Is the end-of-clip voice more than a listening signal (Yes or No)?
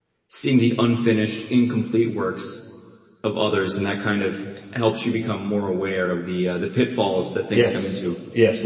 Yes